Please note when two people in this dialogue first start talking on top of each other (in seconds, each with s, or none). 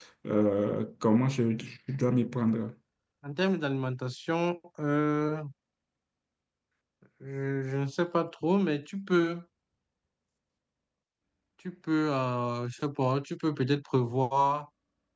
none